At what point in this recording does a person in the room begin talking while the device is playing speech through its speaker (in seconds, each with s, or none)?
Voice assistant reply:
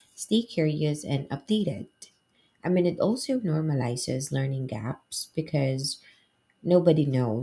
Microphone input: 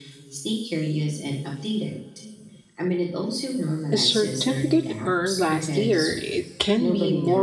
3.9 s